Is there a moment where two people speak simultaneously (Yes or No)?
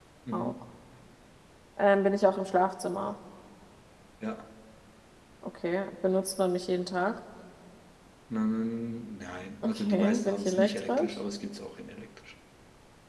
Yes